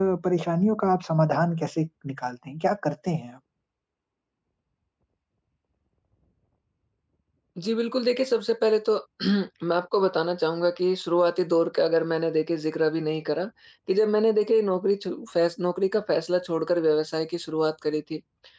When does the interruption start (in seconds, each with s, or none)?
none